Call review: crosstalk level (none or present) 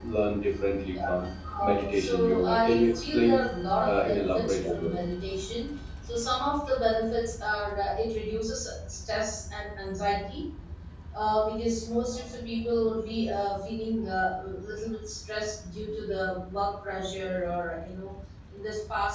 present